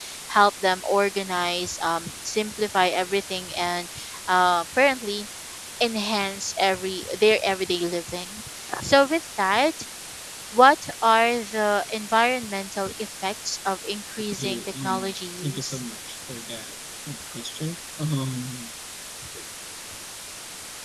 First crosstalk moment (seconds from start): 14.3 s

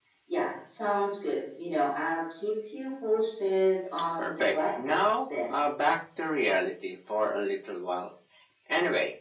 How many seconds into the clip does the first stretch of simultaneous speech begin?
4.2 s

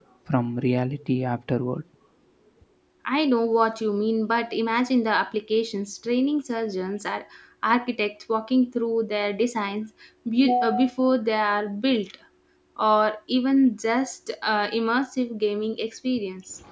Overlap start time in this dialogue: none

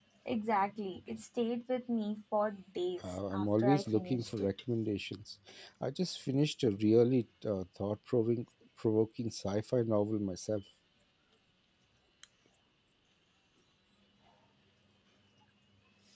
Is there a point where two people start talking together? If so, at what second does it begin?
3.0 s

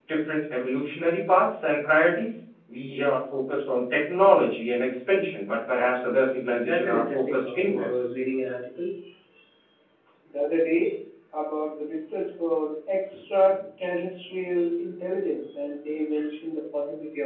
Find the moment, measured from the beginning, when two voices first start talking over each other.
6.7 s

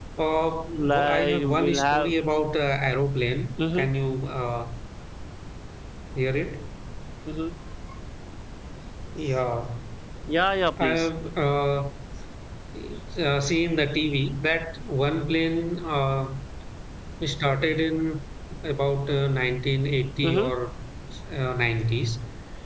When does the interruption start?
0.9 s

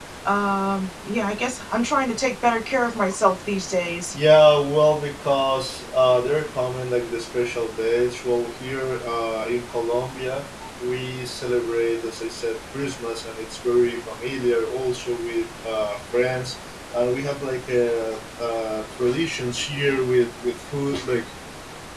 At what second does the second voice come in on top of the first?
none

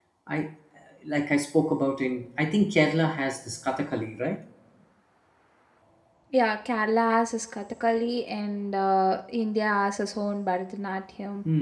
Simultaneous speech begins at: none

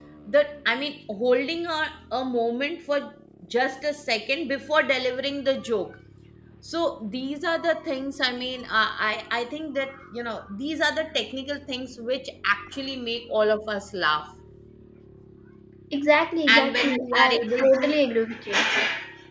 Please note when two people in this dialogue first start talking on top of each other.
16.5 s

